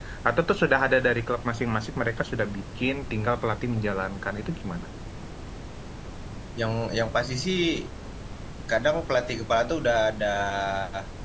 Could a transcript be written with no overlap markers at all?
Yes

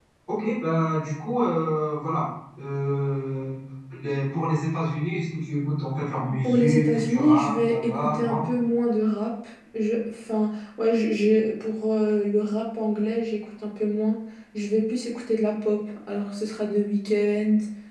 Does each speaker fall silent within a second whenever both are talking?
No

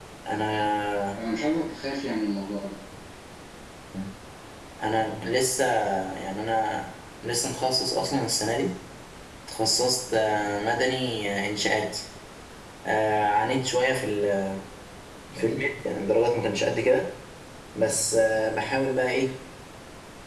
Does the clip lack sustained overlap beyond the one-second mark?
Yes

